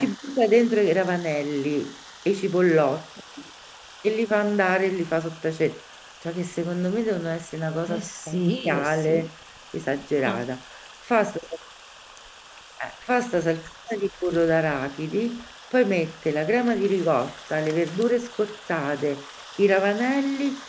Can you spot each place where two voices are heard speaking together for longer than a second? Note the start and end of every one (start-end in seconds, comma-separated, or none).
7.9-9.3